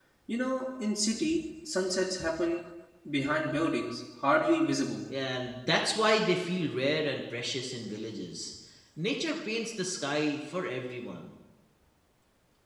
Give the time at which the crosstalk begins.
none

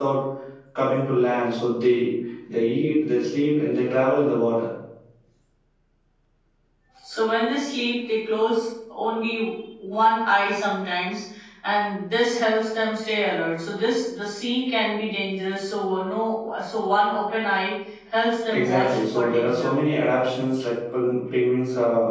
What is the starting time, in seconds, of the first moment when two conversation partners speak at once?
18.5 s

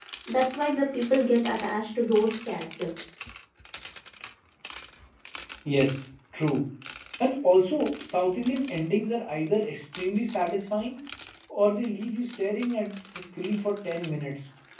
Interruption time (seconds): none

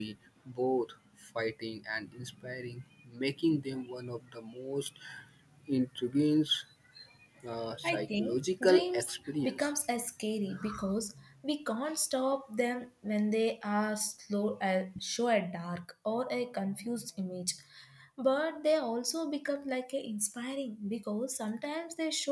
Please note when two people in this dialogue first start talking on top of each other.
7.8 s

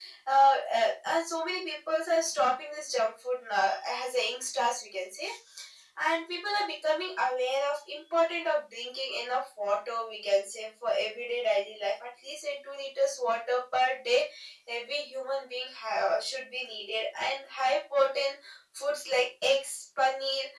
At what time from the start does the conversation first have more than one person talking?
none

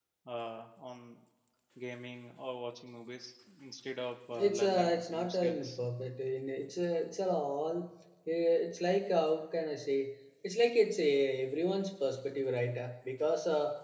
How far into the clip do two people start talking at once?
4.3 s

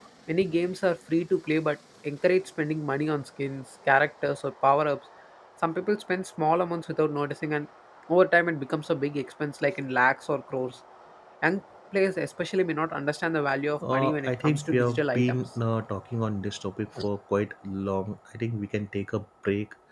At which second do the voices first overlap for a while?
13.8 s

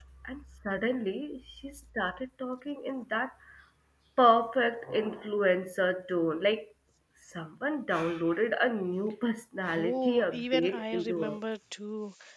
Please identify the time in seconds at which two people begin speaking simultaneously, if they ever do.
9.6 s

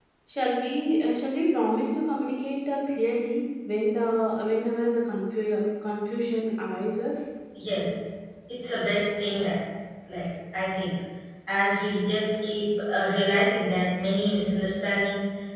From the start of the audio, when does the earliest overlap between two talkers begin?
none

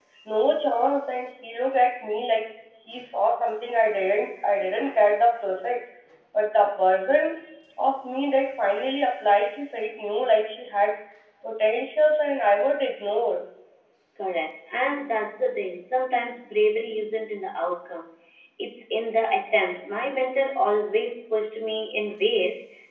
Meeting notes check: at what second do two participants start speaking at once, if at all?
none

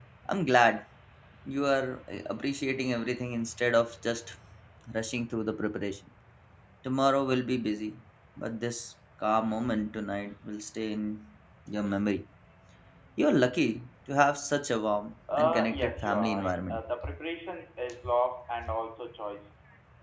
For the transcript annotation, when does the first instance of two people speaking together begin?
15.3 s

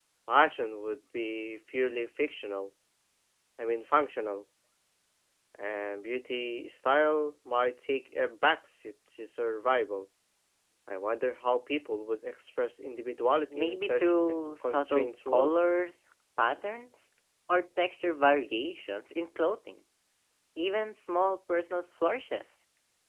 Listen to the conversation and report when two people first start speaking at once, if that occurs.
13.5 s

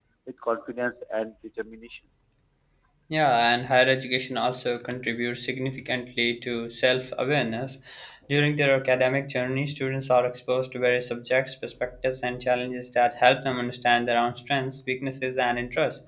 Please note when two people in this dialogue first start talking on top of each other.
none

